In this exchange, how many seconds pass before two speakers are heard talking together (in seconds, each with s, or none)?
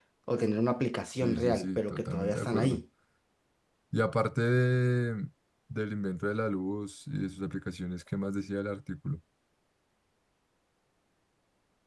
1.1 s